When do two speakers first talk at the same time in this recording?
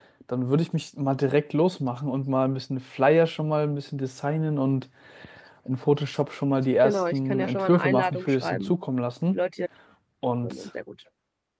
7 s

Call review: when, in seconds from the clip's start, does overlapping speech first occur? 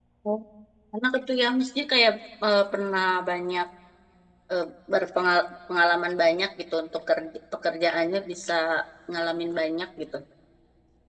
none

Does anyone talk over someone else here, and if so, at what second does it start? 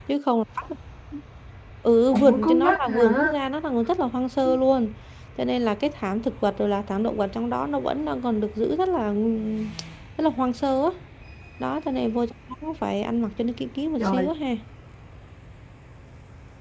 2 s

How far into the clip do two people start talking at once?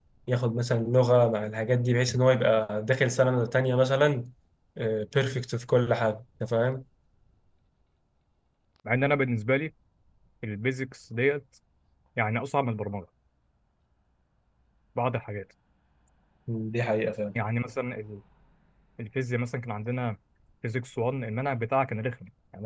none

